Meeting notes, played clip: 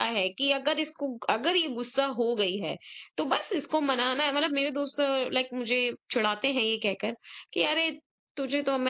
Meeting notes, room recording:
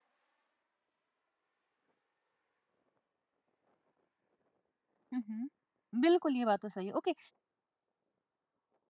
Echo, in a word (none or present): none